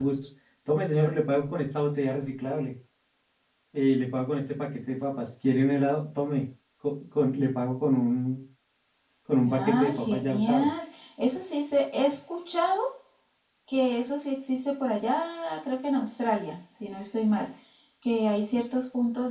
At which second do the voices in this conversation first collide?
9.5 s

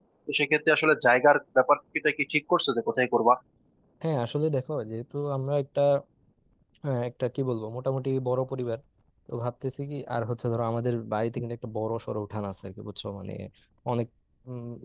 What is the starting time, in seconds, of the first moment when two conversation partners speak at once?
none

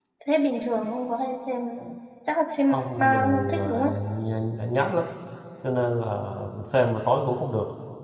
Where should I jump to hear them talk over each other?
2.7 s

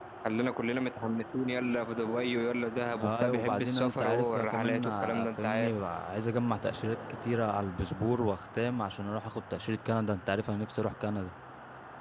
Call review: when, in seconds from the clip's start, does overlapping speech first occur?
2.9 s

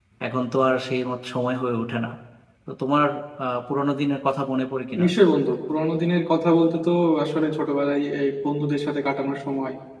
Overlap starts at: none

